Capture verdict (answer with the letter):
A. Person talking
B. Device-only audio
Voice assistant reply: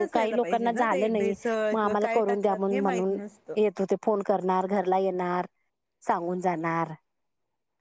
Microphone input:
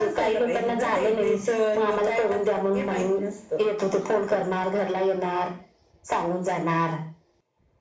B